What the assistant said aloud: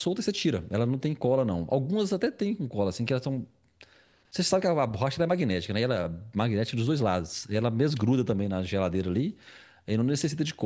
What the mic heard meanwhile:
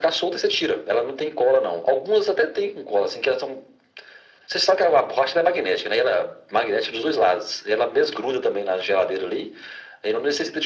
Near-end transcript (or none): none